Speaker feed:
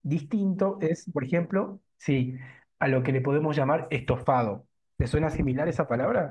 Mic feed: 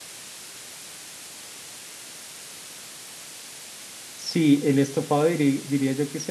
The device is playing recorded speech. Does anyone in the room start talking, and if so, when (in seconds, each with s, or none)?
4.2 s